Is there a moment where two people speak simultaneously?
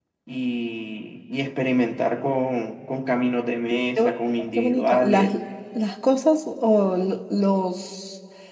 Yes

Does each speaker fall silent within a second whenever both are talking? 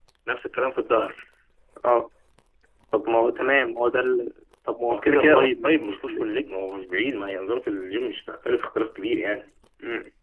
No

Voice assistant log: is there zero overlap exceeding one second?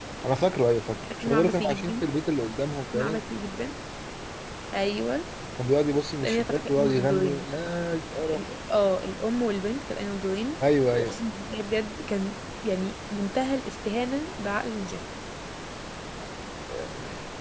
No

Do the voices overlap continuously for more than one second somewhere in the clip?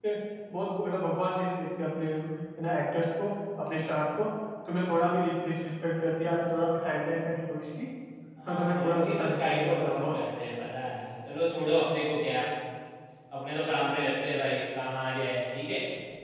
Yes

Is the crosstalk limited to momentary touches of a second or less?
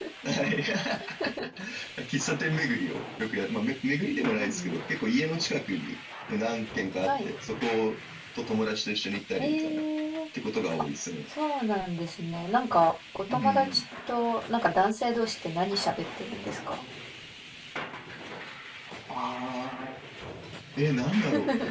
Yes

